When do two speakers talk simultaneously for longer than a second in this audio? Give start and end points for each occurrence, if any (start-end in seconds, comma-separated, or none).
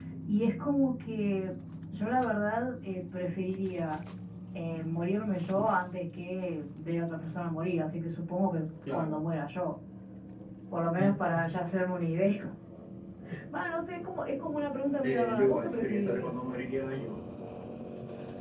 15.0-16.3